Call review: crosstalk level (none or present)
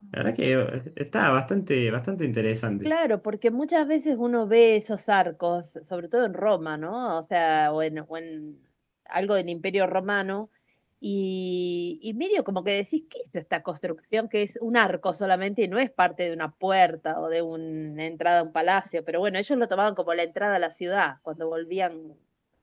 none